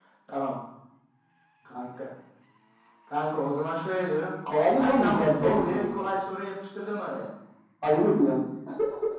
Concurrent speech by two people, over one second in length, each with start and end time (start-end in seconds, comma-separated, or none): 4.8-6.0